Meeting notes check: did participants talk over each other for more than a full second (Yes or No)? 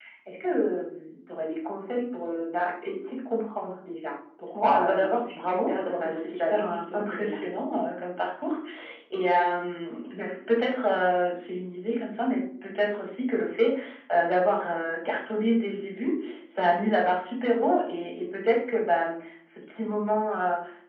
Yes